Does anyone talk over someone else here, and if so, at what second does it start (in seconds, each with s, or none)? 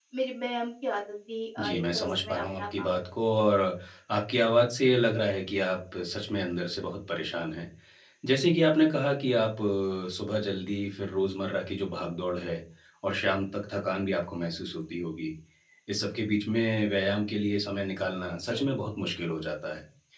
1.6 s